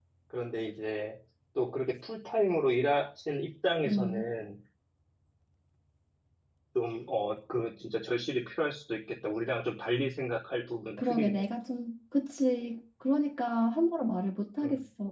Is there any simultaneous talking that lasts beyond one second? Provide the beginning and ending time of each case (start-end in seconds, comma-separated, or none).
none